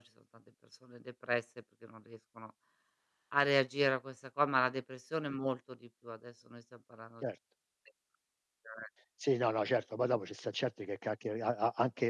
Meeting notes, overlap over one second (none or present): none